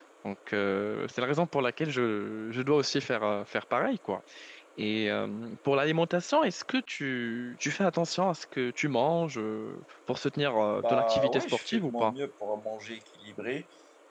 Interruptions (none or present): present